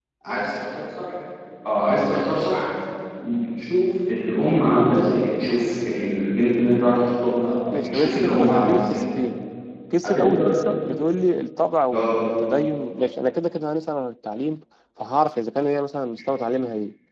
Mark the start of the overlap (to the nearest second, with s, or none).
8 s